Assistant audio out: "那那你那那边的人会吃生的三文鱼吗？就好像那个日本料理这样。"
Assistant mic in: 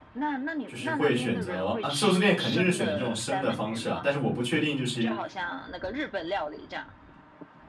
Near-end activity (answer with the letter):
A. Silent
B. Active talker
B